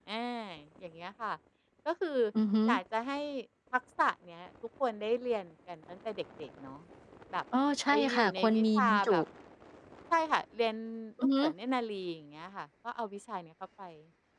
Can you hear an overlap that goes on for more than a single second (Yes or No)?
Yes